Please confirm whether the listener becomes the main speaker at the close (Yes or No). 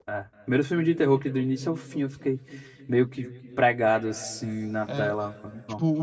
Yes